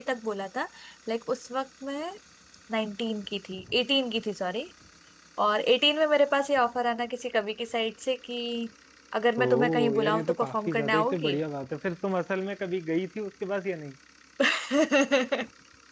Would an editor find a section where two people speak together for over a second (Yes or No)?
Yes